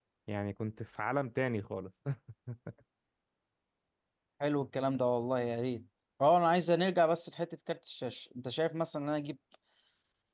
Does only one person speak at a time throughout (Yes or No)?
Yes